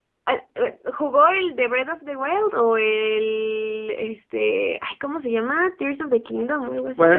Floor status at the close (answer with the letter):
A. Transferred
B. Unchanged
A